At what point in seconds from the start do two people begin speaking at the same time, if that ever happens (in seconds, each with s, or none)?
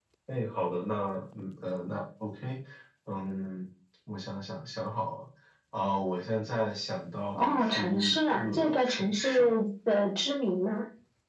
7.4 s